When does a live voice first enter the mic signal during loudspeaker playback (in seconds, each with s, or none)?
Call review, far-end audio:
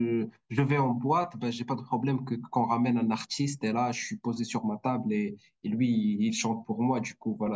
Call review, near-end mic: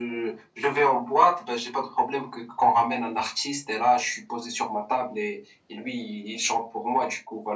none